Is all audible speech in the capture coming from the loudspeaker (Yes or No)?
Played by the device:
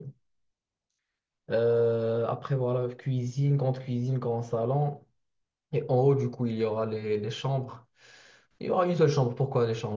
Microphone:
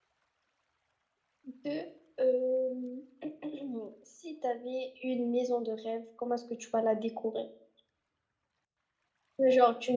No